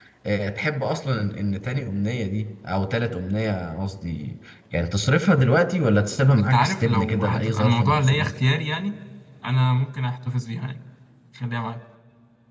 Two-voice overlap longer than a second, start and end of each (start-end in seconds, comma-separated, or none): 6.5-8.3